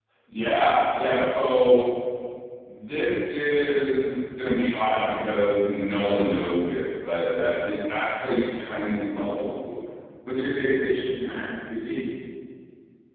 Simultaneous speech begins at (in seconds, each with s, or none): none